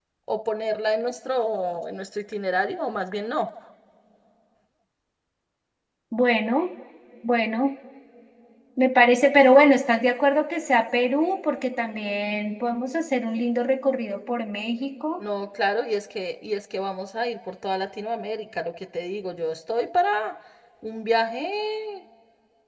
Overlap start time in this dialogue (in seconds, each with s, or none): none